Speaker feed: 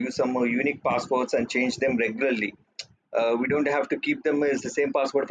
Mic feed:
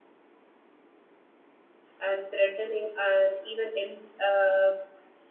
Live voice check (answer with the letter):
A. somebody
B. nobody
A